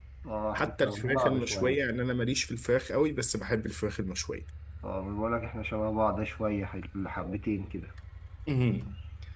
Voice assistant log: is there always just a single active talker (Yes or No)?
No